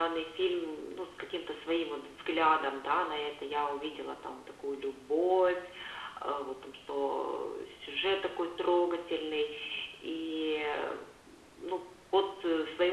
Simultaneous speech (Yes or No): No